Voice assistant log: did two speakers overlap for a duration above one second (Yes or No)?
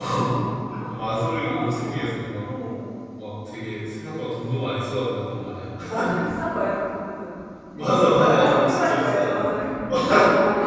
Yes